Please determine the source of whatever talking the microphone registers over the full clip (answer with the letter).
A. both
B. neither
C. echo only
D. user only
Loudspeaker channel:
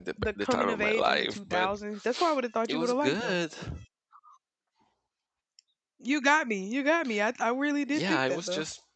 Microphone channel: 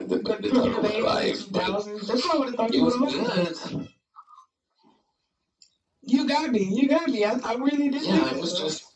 C